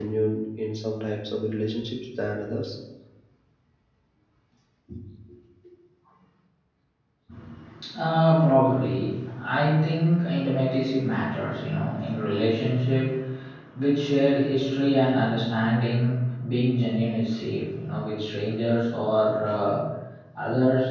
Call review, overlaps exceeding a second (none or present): none